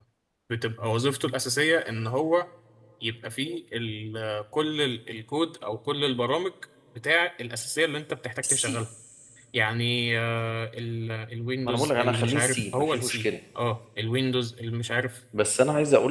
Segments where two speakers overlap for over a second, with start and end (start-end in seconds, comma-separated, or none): 11.6-13.3